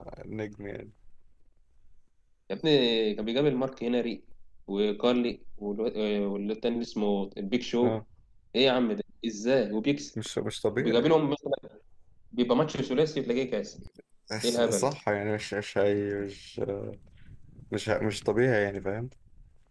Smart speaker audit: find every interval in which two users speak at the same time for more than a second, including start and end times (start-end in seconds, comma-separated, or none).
none